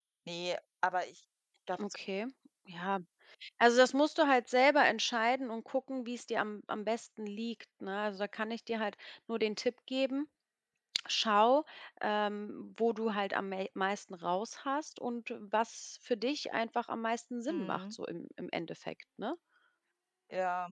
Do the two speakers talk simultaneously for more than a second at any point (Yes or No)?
No